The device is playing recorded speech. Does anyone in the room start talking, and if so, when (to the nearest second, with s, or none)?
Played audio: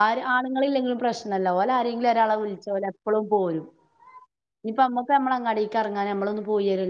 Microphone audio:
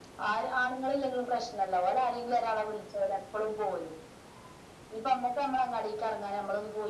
none